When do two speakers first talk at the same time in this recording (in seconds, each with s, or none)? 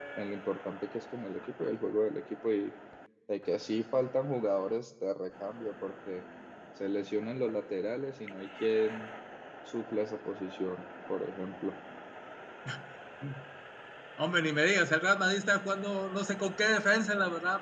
none